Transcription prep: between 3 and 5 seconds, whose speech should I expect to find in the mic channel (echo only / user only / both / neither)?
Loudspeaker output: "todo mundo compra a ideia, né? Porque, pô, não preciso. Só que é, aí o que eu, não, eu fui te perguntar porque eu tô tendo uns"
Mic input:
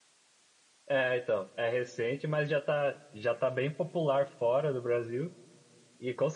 user only